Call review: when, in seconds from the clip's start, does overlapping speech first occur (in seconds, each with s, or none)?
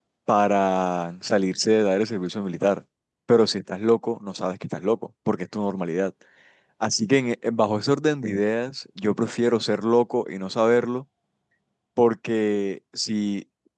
none